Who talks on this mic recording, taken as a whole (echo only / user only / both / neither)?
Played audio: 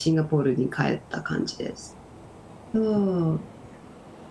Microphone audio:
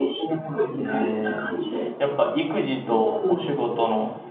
both